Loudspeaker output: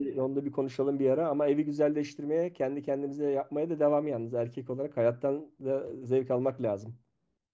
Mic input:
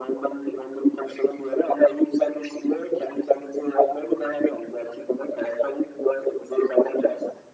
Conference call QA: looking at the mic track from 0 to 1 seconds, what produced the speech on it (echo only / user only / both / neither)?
echo only